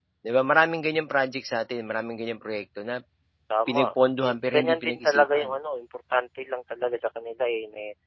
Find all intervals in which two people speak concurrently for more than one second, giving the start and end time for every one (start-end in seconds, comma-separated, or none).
4.2-5.5